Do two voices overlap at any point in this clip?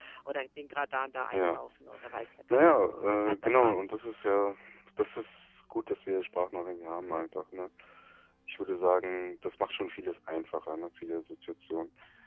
Yes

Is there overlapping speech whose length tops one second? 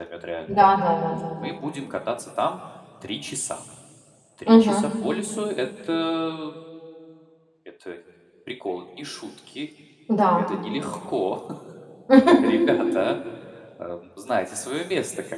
No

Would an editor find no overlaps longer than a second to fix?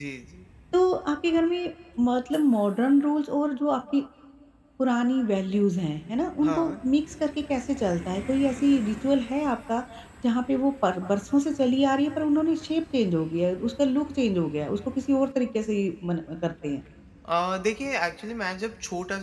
Yes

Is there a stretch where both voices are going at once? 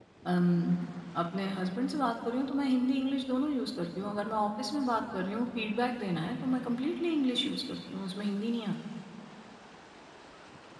No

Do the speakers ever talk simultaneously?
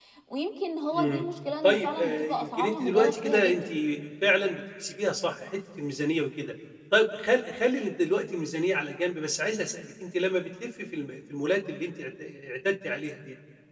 Yes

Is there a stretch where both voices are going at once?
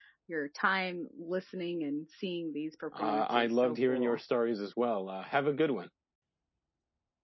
Yes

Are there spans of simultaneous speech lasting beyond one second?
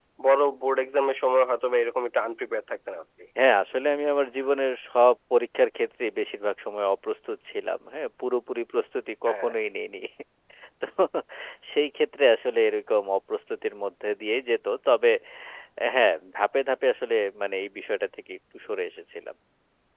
No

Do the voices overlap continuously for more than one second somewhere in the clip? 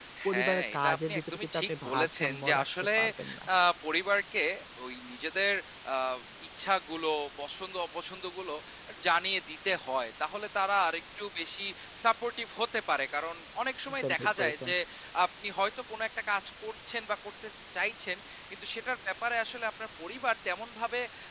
Yes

